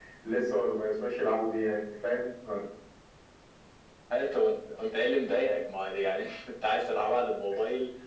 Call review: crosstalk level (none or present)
none